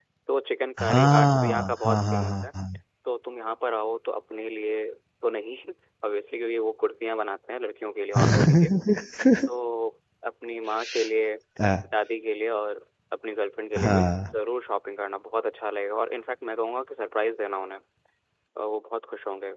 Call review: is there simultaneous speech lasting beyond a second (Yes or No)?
Yes